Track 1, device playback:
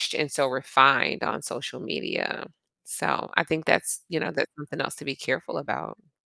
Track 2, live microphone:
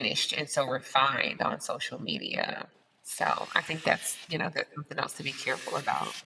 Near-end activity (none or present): none